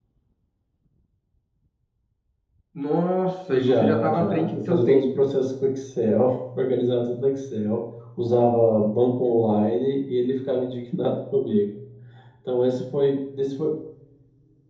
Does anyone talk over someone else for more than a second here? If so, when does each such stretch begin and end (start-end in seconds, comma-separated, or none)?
3.5-5.1